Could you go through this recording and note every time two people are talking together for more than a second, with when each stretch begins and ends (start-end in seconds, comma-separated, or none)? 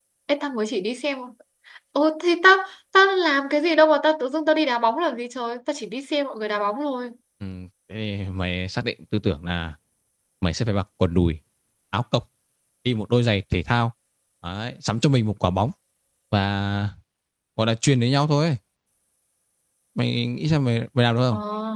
none